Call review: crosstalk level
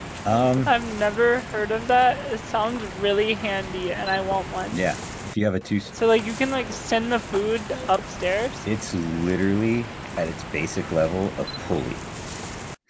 none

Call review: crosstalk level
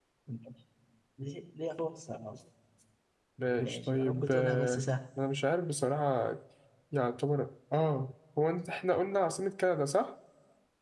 present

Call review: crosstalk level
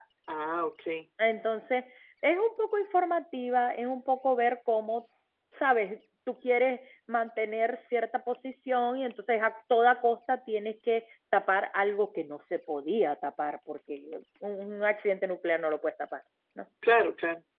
none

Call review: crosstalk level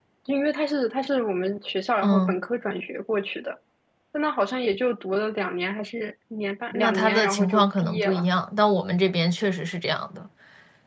present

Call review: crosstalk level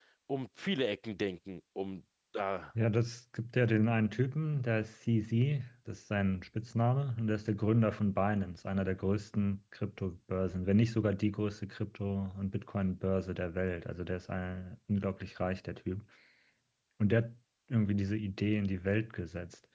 none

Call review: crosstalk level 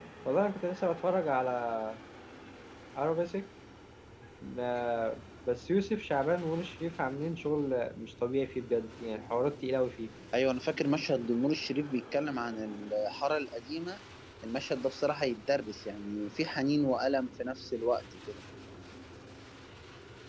none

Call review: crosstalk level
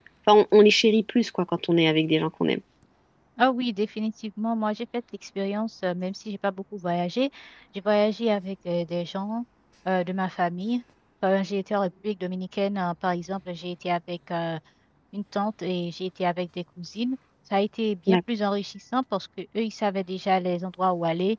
none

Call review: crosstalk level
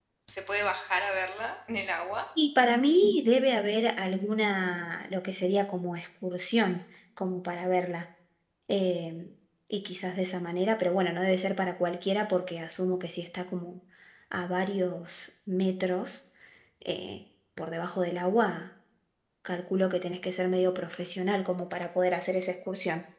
none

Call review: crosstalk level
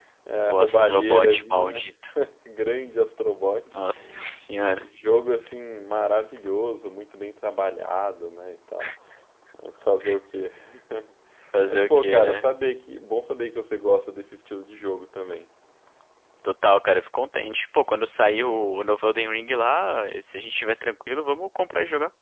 present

